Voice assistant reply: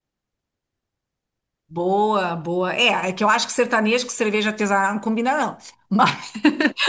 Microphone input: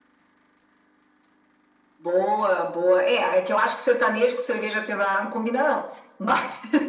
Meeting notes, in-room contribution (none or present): none